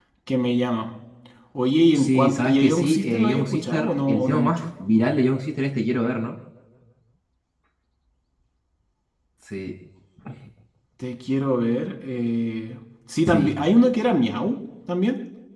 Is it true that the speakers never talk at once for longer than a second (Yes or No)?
No